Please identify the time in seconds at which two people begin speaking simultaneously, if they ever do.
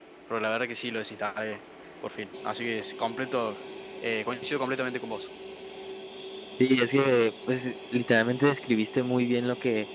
none

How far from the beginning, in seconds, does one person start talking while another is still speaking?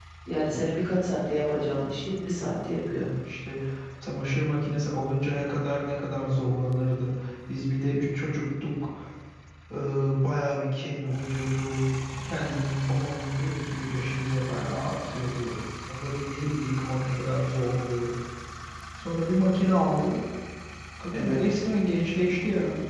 1.5 s

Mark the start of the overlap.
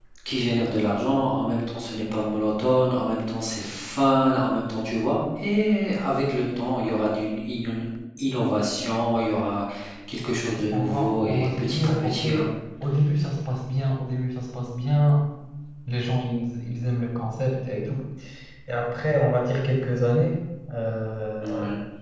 10.7 s

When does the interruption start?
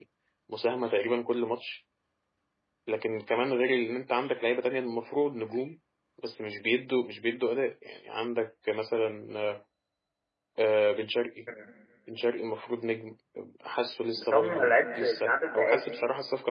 14.1 s

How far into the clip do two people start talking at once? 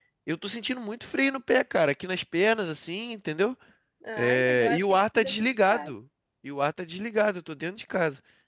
4.2 s

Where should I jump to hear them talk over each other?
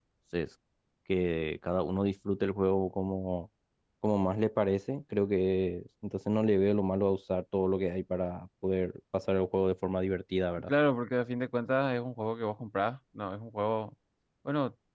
none

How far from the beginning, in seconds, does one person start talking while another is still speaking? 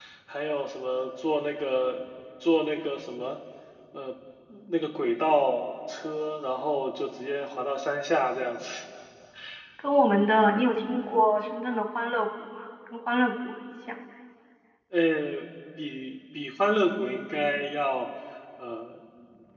none

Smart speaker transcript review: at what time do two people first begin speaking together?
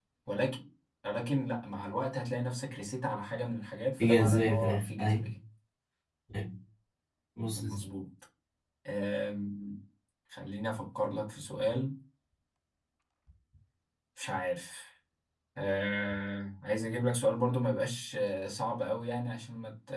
4.0 s

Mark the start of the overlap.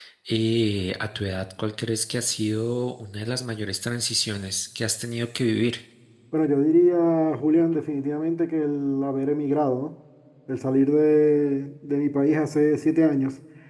none

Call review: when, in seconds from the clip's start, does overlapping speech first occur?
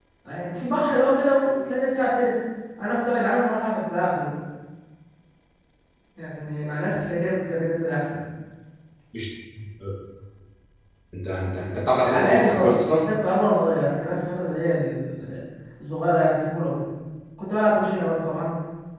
11.9 s

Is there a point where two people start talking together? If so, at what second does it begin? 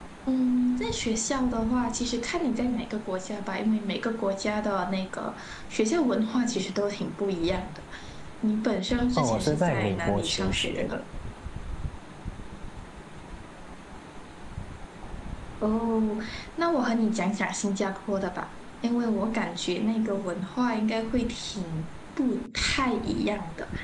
9.2 s

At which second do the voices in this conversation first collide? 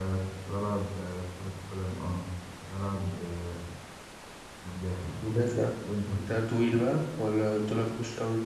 none

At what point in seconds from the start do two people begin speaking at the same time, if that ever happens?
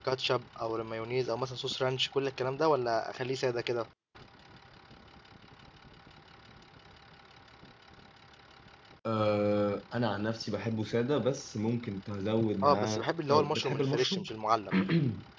12.6 s

